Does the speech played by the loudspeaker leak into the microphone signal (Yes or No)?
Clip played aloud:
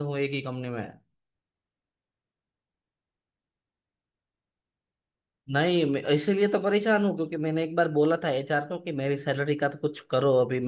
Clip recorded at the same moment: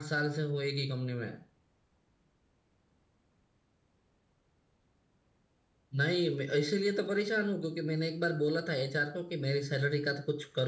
Yes